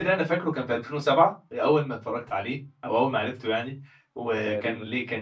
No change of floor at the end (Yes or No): Yes